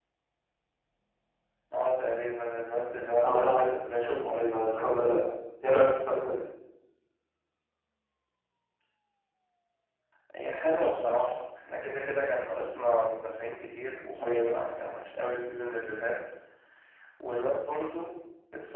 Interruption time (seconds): 3 s

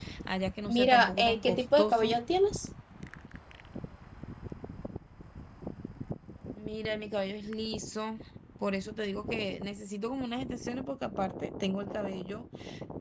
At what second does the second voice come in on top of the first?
1 s

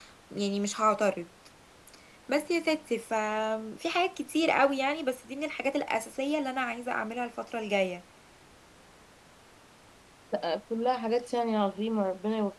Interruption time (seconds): none

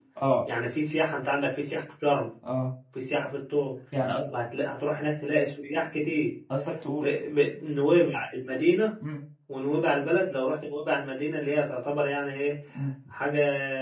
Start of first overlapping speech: none

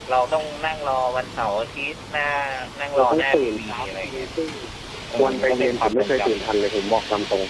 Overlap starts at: 3 s

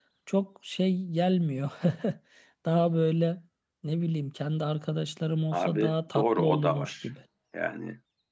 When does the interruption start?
6 s

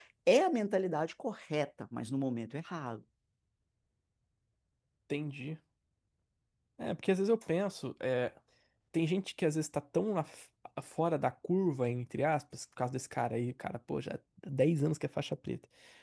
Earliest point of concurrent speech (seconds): none

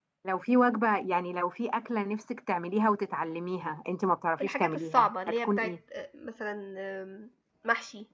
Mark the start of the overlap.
4 s

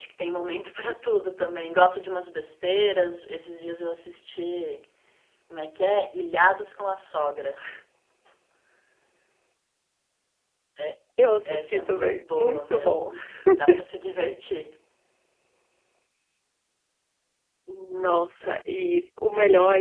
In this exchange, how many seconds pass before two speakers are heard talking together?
11 s

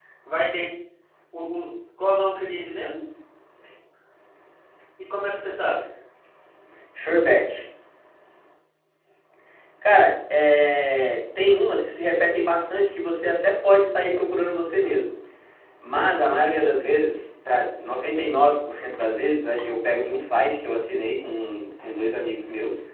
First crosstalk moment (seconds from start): none

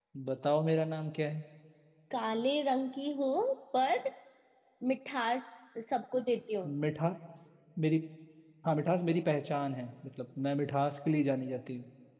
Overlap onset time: none

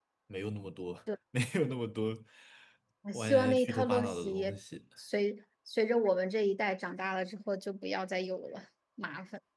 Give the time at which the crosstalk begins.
3 s

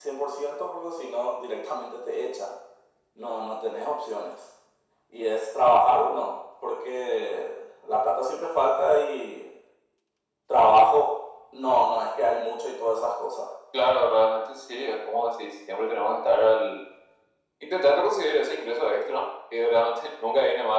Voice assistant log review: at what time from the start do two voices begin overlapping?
none

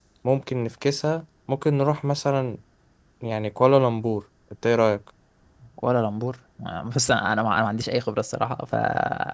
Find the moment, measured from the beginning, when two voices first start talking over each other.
none

